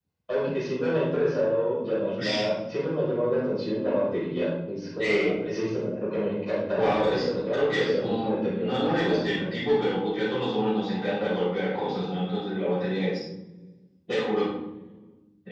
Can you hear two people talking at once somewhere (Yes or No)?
Yes